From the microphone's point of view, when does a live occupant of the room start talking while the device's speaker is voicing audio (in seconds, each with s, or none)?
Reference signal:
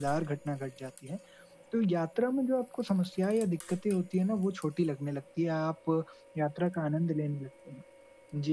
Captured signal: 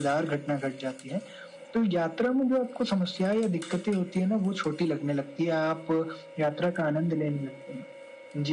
none